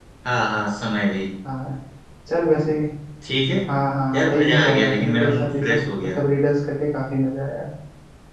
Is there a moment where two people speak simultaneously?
Yes, from 4.1 s

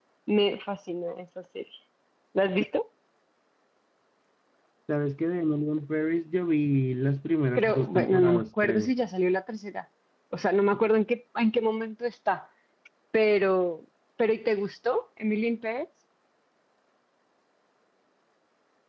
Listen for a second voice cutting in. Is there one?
Yes, from 7.6 s

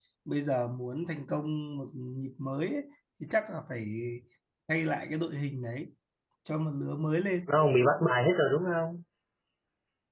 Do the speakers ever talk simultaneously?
No

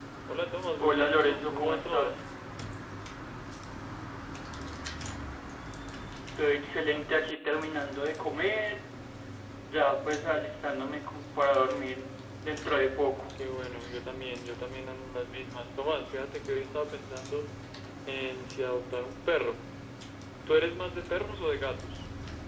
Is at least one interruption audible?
Yes, from 0.8 s

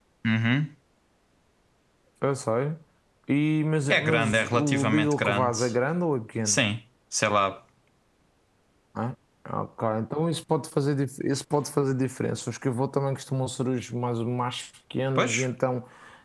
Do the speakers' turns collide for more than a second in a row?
Yes, from 3.9 s

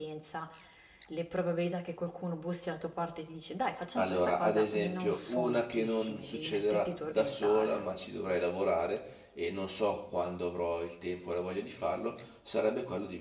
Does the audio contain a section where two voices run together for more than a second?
Yes, from 4.0 s

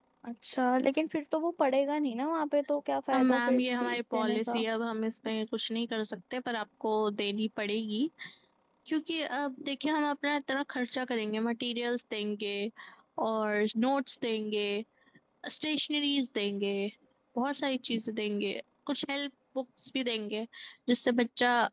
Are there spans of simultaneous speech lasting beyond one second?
Yes, from 3.1 s

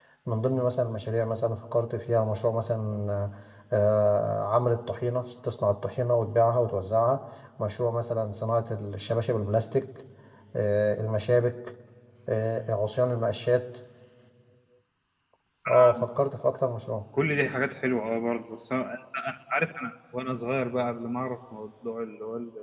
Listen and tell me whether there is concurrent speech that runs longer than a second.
No

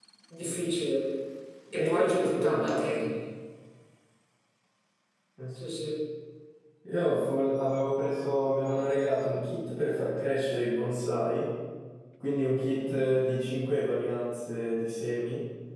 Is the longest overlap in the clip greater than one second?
Yes, from 1.7 s

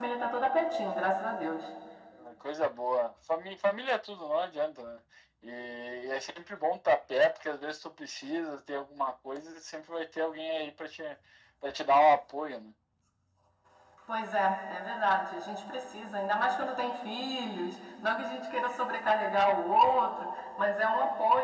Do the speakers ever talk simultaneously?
No

